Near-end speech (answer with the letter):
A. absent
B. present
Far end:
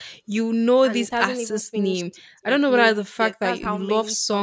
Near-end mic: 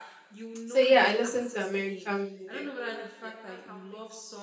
B